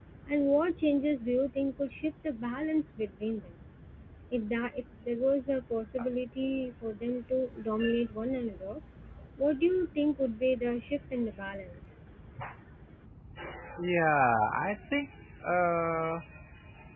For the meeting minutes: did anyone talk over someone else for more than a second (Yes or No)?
No